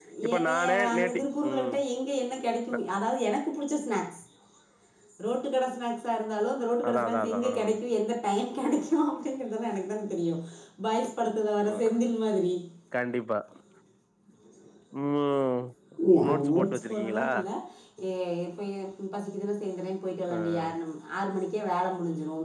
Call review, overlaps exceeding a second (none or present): present